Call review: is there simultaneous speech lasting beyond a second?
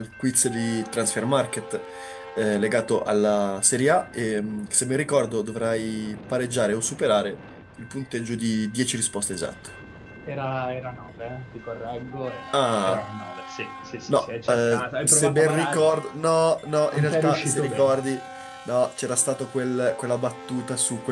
Yes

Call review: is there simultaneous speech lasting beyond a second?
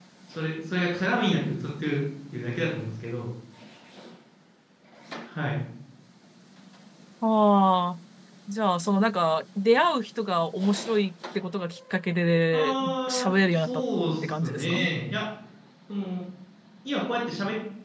Yes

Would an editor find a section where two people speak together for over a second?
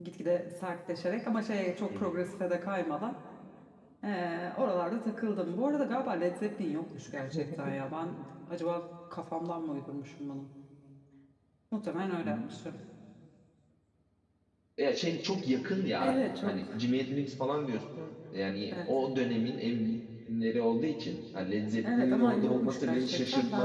Yes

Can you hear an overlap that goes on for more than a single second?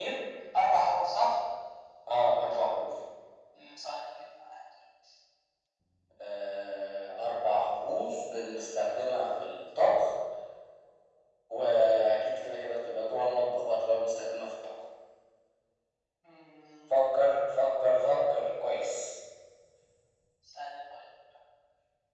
No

